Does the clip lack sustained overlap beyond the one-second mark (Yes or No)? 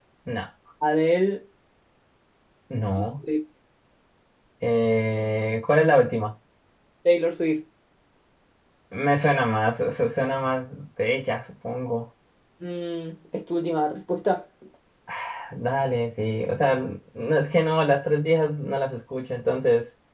Yes